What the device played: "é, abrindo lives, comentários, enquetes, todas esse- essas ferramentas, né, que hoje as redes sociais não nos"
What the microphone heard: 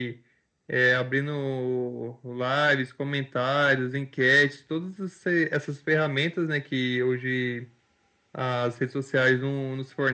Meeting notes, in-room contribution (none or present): none